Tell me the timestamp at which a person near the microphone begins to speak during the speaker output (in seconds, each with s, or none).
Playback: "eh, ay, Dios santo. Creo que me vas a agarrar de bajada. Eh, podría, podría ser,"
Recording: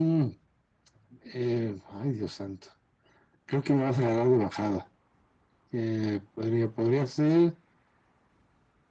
none